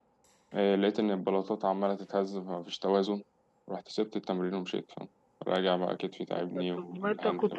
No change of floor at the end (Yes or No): No